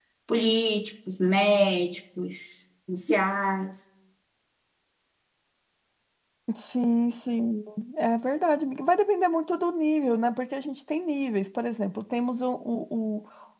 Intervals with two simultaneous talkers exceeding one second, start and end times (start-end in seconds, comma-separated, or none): none